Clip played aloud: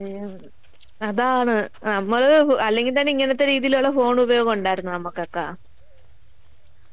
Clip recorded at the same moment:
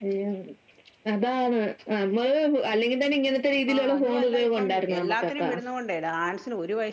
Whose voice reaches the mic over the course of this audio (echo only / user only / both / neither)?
both